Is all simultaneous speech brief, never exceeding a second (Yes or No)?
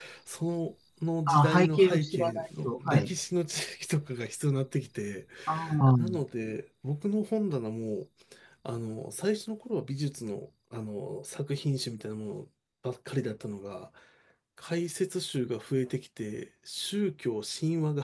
No